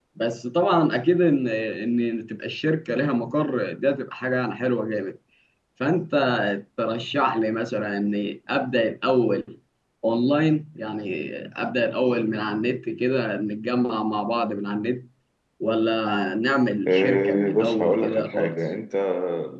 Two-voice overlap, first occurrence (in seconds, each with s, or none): 16.9 s